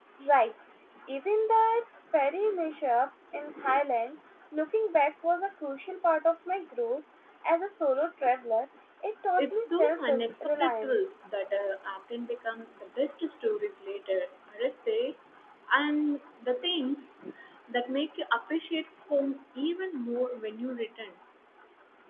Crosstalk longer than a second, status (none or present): present